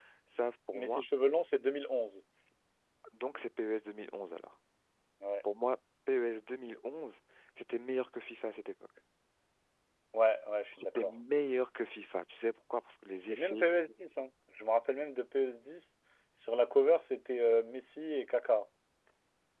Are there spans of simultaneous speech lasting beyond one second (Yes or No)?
No